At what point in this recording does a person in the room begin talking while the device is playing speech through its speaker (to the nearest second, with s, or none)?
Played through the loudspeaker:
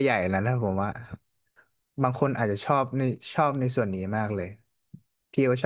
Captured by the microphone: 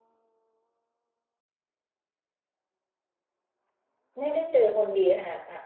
4 s